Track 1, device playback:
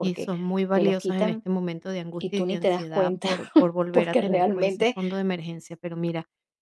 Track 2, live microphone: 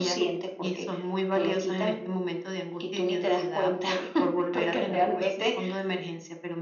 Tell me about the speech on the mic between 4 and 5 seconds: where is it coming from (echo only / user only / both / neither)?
echo only